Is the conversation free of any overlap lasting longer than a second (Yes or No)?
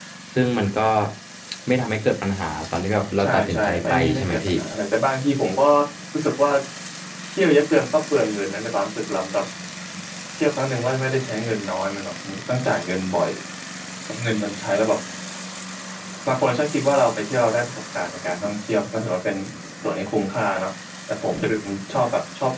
No